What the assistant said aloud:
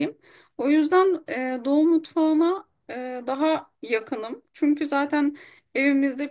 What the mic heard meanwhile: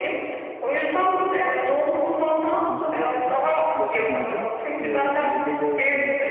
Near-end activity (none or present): present